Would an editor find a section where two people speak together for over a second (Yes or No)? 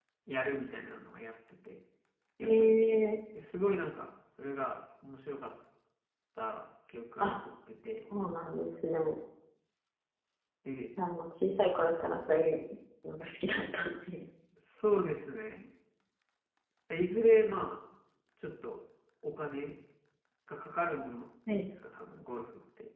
No